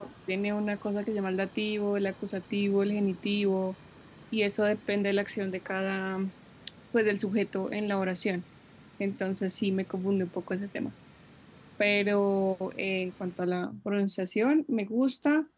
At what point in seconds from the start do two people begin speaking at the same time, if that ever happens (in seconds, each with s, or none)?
none